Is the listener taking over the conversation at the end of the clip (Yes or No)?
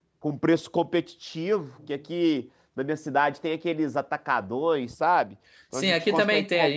Yes